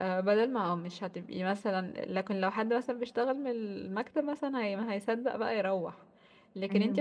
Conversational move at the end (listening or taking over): listening